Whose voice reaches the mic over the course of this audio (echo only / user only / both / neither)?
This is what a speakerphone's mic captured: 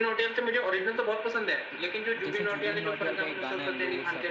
both